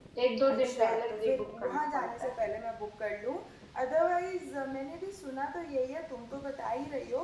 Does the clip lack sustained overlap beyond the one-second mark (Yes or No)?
No